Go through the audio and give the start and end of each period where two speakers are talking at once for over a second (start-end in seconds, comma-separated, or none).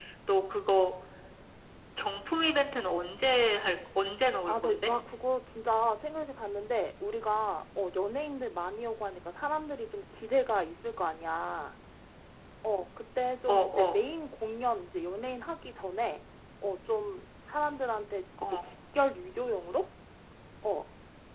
none